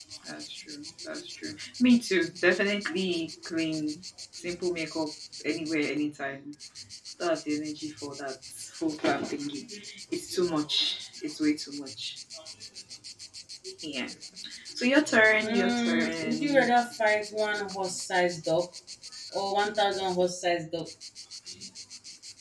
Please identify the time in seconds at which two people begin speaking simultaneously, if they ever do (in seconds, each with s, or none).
15.4 s